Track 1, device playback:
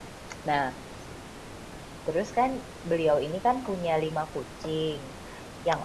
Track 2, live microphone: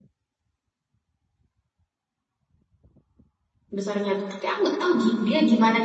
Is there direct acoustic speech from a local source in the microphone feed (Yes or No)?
Yes